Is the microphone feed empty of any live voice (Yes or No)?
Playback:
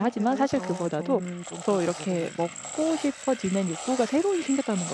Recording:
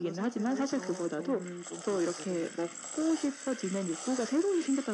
Yes